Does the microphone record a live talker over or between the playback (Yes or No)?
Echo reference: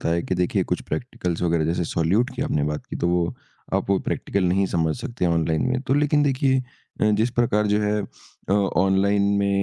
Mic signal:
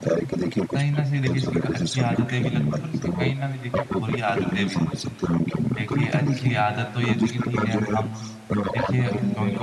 Yes